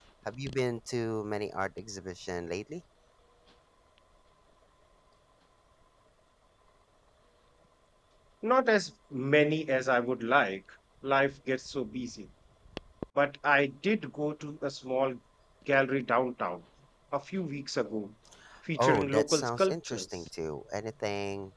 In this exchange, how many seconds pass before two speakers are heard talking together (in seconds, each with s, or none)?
18.8 s